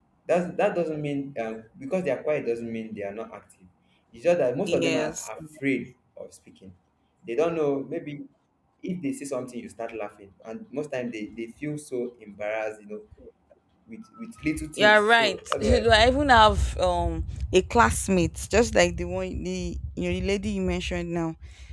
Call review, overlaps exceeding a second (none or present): present